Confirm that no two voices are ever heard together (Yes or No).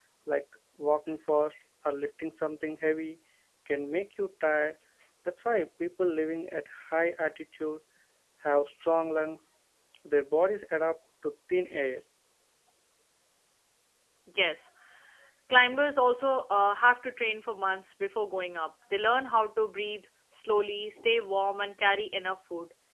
Yes